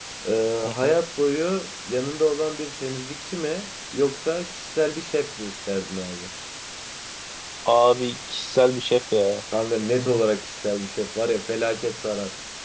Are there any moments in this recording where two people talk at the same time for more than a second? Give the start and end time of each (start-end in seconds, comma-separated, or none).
none